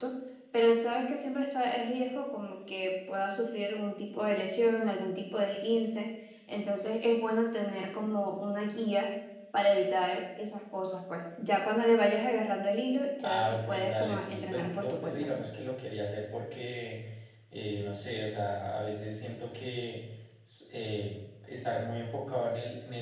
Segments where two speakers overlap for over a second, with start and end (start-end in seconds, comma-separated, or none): 13.2-15.3